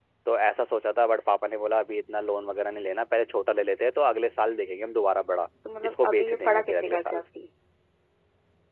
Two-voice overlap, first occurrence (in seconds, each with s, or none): 5.7 s